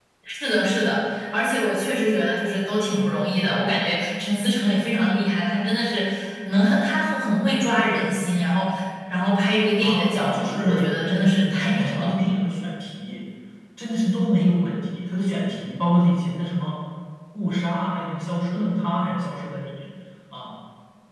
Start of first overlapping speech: 9.8 s

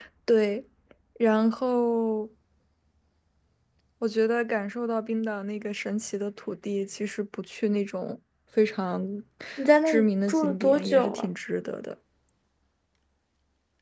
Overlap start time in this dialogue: 9.8 s

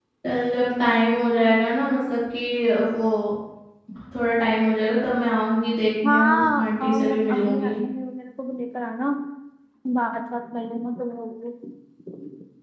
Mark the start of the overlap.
6.0 s

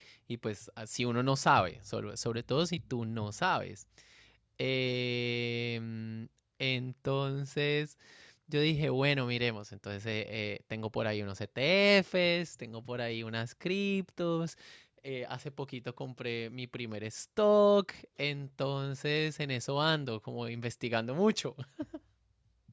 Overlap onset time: none

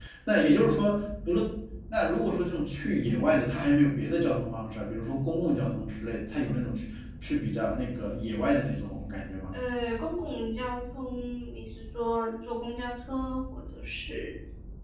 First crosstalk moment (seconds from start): none

